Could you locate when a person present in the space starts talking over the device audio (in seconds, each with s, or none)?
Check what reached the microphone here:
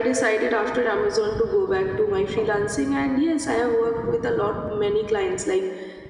none